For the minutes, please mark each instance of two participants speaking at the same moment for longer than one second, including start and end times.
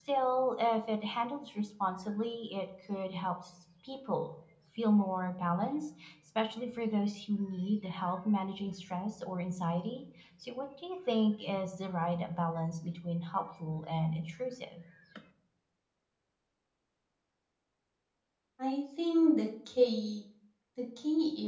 none

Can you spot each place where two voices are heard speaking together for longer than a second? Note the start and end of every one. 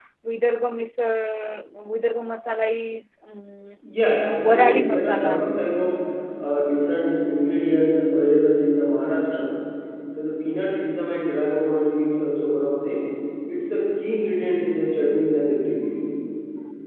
4.2-5.6

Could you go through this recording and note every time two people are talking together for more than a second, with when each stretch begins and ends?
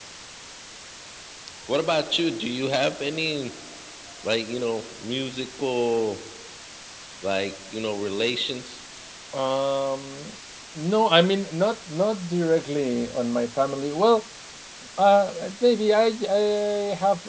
none

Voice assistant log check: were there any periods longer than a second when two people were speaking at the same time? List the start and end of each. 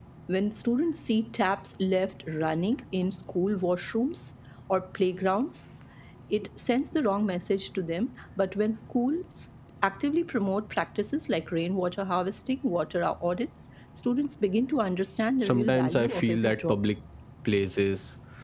15.4-16.9

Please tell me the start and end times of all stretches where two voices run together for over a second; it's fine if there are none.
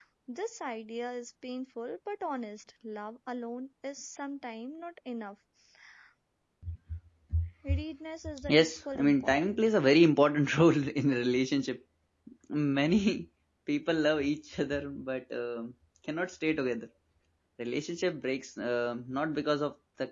8.5-9.7

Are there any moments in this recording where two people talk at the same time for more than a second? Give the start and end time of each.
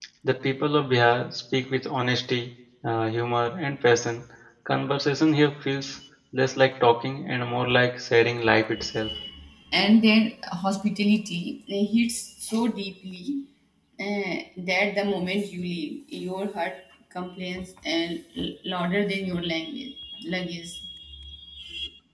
none

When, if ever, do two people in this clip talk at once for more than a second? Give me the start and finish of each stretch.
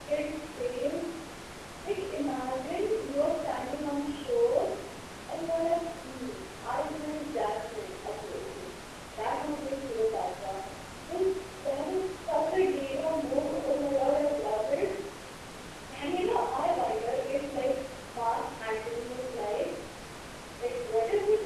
none

